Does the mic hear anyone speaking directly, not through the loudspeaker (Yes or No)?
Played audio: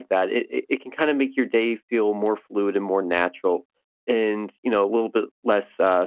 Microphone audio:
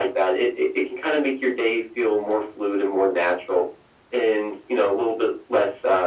No